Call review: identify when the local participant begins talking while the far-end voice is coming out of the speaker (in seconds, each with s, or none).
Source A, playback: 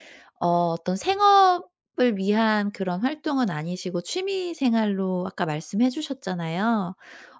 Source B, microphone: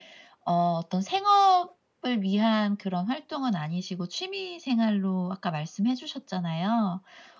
none